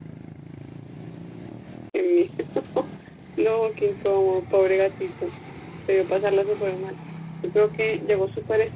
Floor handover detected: No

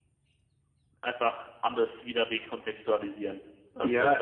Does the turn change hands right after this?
Yes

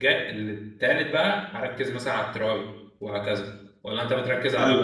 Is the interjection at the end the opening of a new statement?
Yes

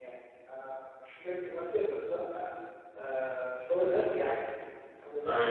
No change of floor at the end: No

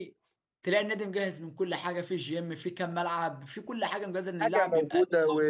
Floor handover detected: Yes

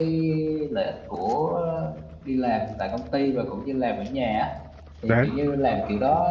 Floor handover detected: No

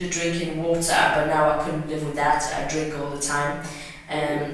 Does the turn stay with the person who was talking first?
Yes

